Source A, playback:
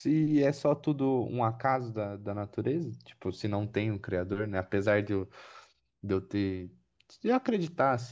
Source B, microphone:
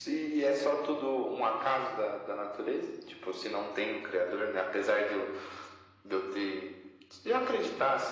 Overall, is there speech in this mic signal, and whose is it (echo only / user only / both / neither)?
echo only